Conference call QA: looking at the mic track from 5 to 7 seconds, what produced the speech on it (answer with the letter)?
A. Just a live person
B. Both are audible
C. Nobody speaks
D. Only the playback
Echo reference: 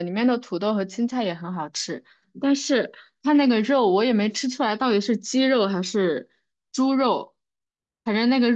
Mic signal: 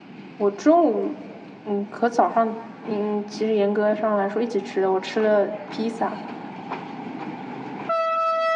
A